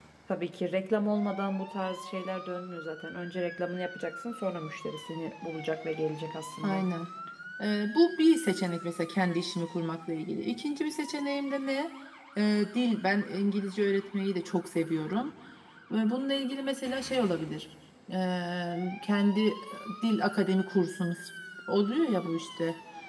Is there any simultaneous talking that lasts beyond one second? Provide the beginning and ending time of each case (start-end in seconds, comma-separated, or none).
none